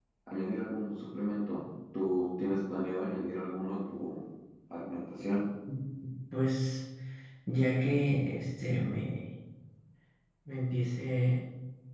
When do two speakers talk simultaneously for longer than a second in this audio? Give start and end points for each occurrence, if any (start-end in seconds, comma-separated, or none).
none